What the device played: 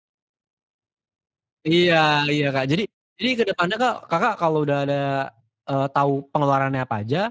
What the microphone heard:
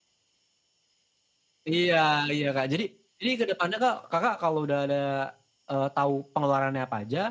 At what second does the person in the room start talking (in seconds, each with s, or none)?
none